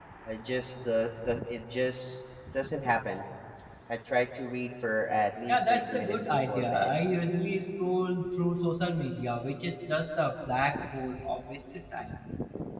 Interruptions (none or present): present